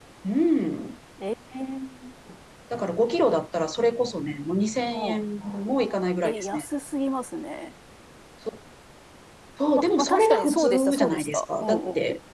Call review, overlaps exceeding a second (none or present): present